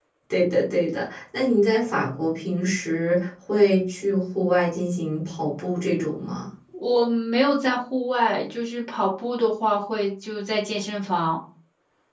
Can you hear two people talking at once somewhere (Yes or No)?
No